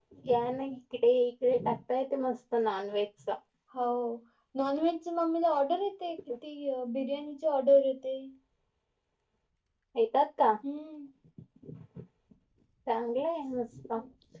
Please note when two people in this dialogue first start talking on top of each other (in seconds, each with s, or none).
none